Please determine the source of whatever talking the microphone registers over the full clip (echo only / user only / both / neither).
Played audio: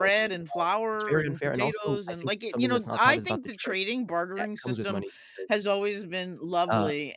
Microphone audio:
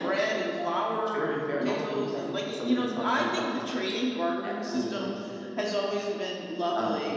echo only